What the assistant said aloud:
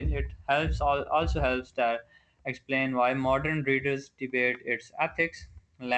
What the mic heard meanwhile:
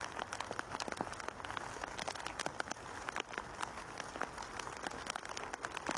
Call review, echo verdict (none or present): none